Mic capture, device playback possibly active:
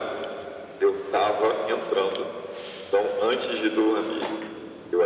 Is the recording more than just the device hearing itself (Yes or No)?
No